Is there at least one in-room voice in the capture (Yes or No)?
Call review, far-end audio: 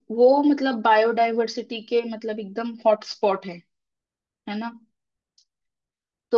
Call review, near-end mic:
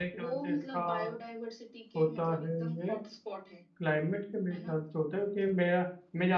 Yes